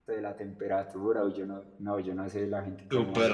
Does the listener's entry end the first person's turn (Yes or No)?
Yes